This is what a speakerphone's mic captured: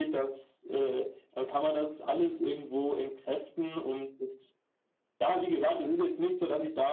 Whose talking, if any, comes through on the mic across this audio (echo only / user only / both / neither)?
echo only